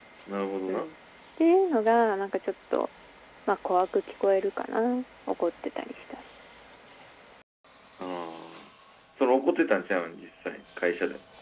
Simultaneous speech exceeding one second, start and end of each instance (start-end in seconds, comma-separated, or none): none